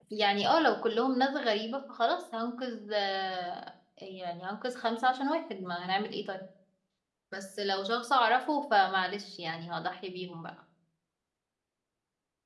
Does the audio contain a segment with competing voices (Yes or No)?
No